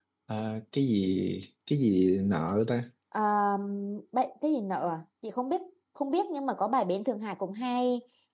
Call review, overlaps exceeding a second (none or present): none